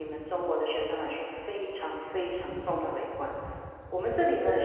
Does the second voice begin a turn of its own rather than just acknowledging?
No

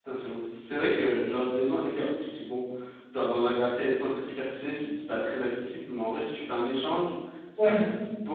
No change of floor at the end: Yes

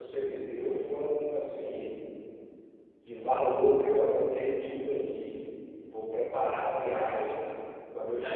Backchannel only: No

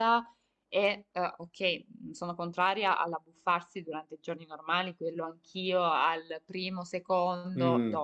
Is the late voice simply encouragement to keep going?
No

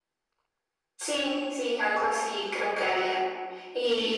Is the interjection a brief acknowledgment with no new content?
Yes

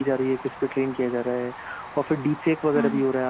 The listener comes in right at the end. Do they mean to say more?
No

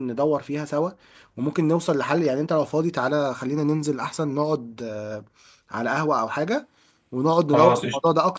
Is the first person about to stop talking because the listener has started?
No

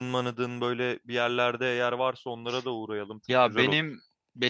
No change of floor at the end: No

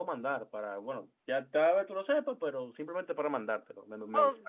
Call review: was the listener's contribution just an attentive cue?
No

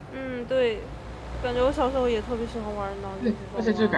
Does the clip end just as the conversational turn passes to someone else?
Yes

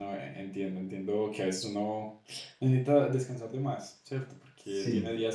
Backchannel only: Yes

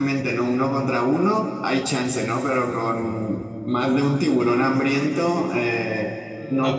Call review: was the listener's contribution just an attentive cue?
No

